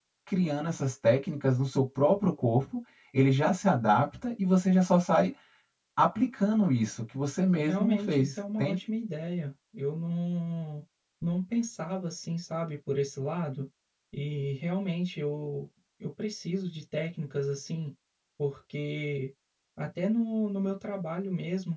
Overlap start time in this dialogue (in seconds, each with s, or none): 7.6 s